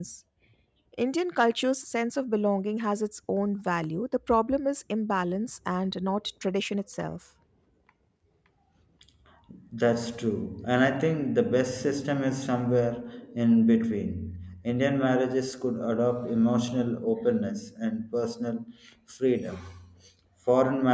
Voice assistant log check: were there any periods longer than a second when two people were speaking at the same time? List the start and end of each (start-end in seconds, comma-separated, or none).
none